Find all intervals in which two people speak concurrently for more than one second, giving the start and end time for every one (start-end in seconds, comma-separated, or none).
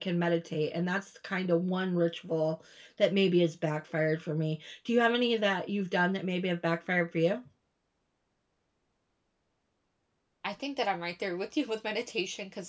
none